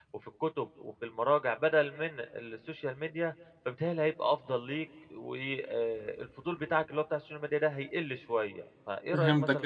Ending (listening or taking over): taking over